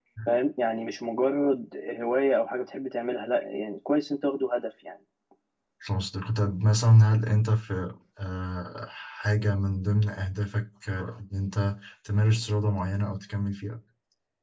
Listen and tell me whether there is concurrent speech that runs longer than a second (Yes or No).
No